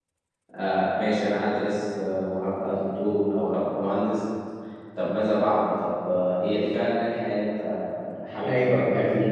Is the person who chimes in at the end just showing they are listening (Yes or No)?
No